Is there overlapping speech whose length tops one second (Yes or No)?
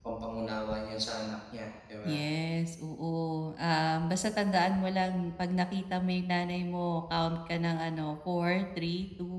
No